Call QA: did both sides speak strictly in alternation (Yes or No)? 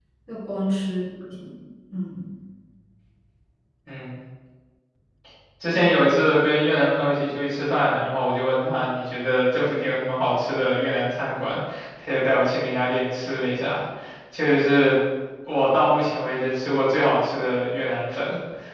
Yes